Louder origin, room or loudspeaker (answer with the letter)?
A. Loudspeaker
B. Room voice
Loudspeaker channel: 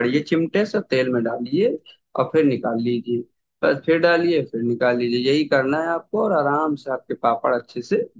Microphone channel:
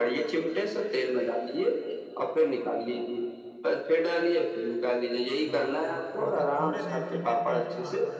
A